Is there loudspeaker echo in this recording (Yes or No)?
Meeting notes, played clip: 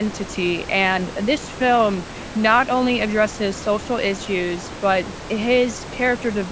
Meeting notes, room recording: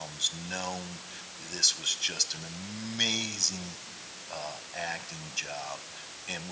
No